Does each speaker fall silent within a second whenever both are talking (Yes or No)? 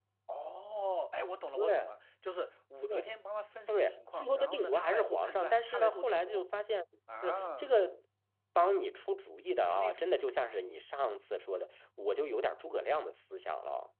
No